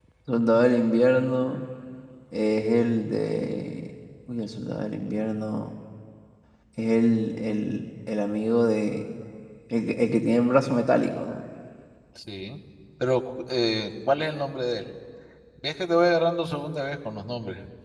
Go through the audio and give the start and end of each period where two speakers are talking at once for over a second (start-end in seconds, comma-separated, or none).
none